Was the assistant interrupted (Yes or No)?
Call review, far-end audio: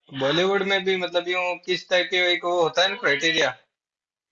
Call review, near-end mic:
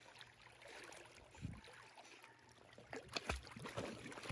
No